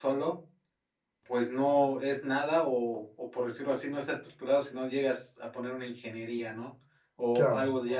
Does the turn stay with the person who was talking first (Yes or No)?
Yes